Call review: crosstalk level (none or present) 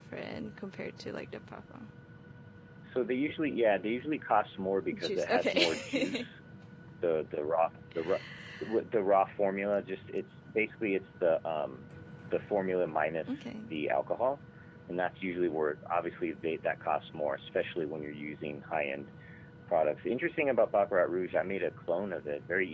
present